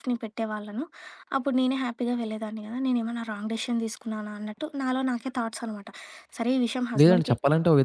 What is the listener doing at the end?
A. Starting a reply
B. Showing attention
A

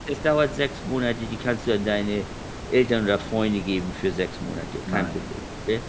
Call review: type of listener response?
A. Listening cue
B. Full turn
B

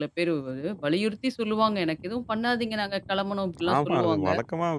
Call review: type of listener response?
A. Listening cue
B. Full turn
B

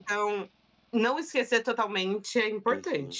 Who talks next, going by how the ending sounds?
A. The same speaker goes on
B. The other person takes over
B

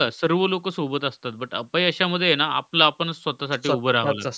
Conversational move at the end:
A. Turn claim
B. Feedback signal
A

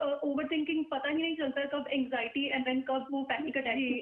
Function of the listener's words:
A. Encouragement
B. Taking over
B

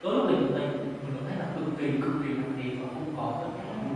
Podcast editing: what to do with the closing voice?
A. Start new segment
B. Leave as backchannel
A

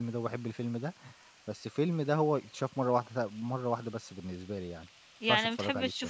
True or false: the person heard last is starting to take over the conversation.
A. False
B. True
B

